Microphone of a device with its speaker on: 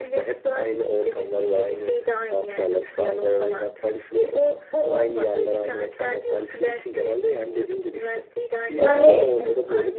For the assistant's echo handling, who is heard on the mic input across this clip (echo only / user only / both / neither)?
both